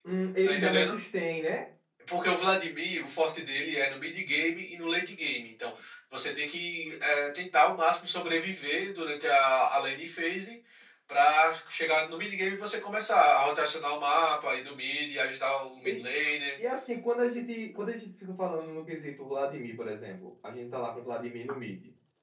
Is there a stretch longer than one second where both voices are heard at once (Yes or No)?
No